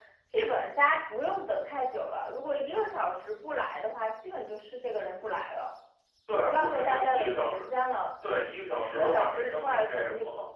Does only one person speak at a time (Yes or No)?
No